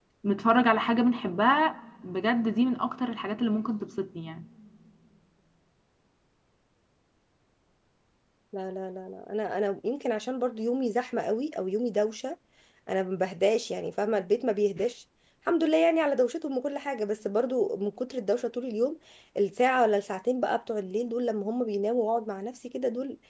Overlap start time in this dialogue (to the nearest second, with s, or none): none